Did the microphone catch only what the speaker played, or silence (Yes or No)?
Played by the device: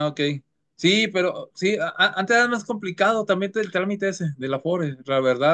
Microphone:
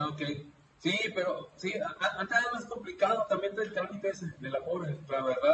Yes